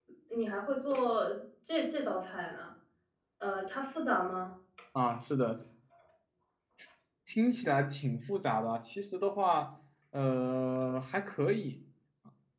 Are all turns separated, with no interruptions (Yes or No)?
Yes